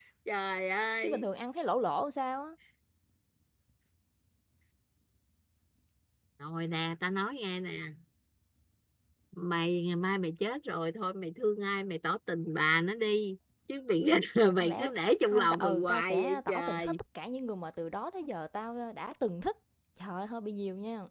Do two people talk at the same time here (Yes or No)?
Yes